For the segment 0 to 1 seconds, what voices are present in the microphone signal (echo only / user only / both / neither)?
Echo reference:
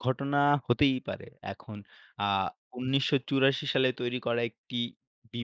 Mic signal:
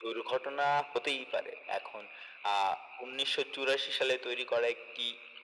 echo only